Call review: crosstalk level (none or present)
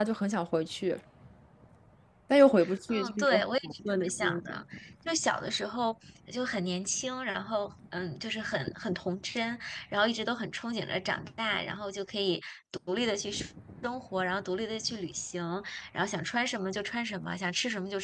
present